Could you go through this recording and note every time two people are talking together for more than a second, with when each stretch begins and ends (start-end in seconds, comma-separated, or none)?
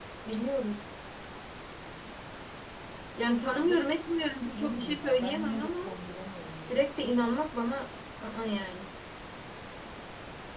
4.5-5.9